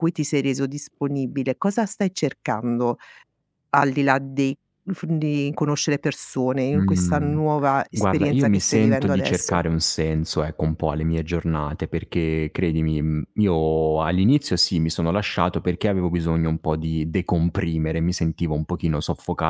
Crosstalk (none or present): present